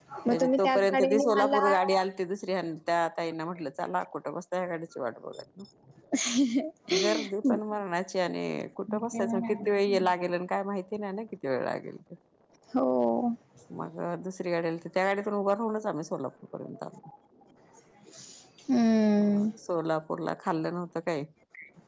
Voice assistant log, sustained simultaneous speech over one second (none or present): present